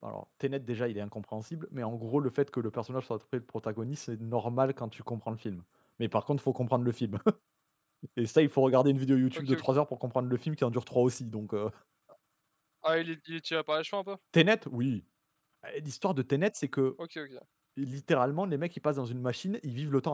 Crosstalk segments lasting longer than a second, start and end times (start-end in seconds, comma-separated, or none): none